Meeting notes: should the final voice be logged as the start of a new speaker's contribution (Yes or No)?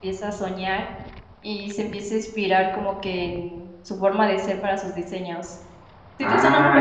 Yes